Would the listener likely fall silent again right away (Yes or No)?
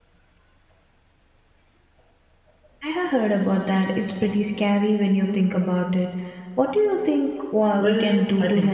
No